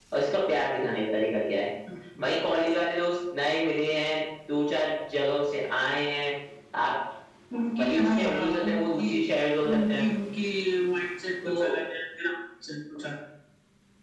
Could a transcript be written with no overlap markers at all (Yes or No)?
No